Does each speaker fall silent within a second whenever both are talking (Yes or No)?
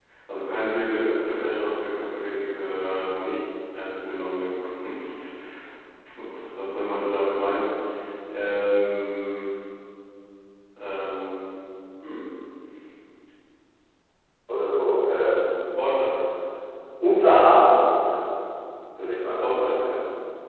Yes